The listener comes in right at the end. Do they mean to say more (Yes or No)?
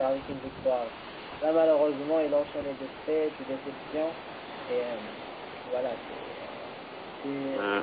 Yes